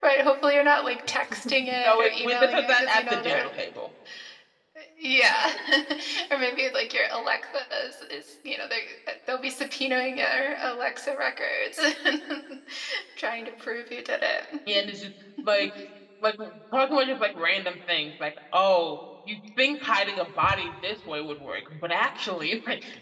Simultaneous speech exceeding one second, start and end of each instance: 1.8-3.4

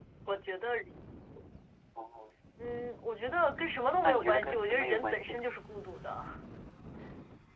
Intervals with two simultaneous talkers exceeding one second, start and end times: 4.0-5.5

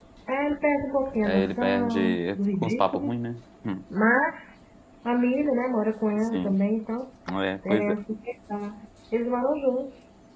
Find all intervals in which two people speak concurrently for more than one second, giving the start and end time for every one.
1.2-3.2

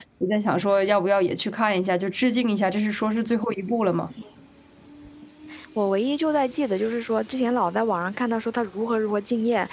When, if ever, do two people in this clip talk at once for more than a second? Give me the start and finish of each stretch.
none

